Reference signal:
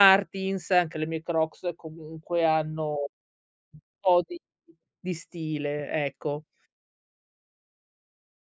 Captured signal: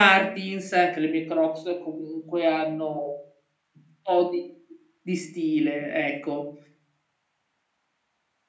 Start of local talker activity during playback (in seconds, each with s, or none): none